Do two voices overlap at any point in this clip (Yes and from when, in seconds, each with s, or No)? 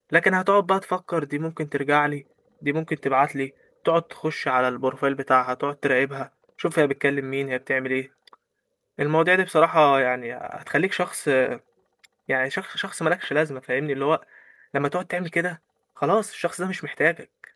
No